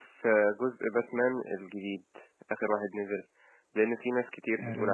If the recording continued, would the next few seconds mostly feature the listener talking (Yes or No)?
No